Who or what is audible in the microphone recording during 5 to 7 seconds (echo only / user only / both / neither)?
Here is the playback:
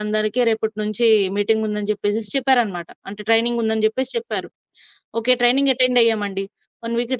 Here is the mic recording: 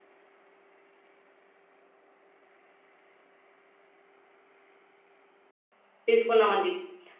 user only